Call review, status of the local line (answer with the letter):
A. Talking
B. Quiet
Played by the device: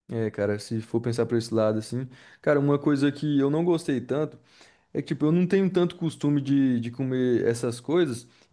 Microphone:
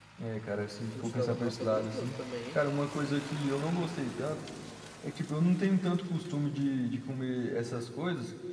A